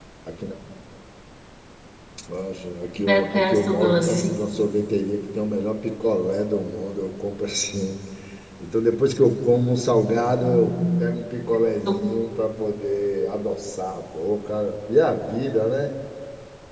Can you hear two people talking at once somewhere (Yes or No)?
Yes